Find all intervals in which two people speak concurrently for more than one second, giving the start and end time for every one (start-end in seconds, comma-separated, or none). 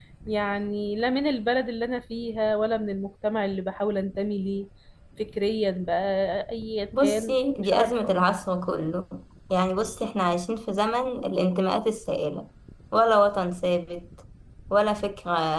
7.0-8.2